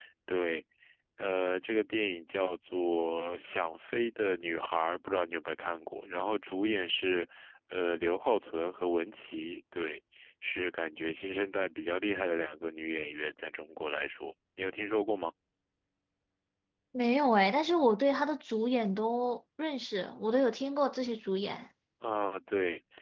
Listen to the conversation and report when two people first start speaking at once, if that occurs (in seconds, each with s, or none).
none